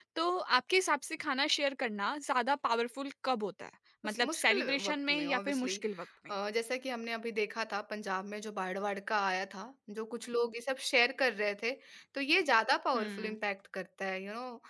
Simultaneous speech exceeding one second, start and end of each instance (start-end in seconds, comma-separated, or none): 4.0-5.8